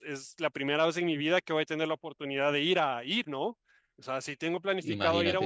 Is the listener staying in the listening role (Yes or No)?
Yes